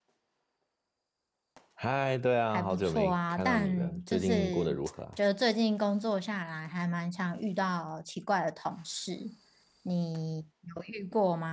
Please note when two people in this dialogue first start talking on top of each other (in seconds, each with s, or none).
2.5 s